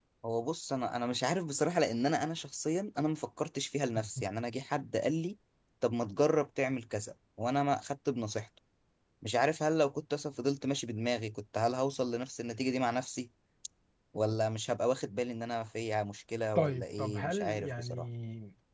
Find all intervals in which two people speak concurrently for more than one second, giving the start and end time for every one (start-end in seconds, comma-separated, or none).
16.6-18.1